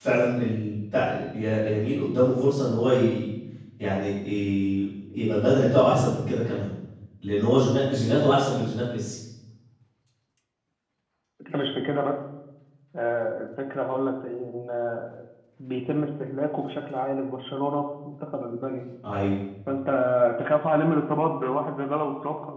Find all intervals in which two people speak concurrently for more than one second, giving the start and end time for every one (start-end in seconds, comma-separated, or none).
none